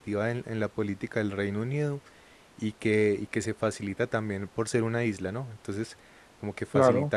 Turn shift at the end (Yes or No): No